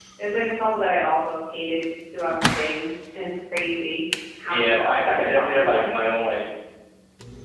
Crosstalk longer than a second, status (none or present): present